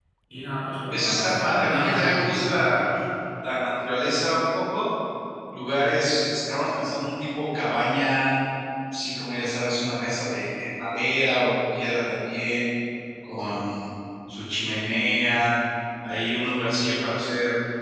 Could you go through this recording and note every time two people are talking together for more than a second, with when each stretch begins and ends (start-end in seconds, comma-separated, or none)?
0.9-2.9